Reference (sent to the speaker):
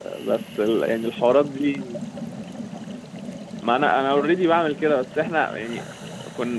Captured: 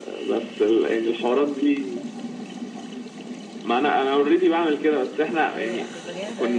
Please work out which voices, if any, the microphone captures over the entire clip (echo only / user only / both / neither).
both